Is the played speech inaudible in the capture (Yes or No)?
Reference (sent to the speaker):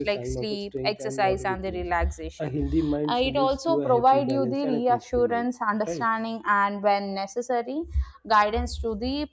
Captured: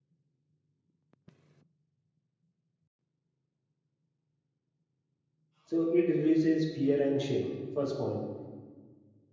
Yes